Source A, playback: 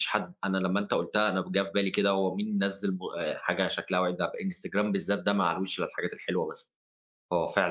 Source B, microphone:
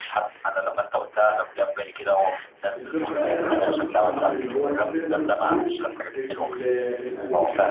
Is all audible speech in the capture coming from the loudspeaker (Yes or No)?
No